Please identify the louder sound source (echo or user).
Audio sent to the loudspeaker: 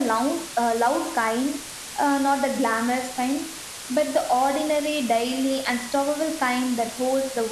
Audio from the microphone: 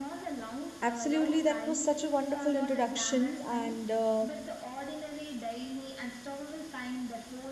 user